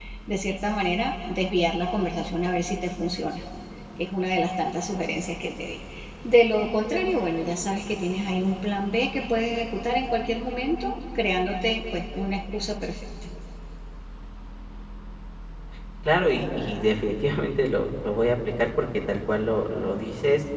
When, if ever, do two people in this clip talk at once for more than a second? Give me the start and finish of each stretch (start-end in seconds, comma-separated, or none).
none